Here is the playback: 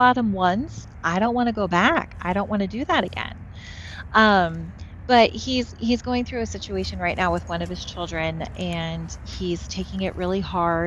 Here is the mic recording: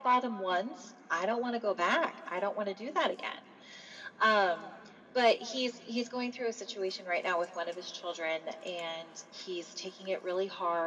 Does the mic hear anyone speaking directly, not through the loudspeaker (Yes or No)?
No